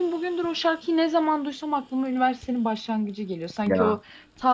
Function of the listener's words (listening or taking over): listening